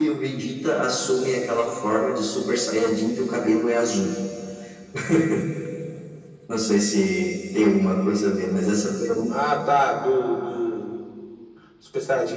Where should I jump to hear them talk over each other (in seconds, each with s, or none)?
none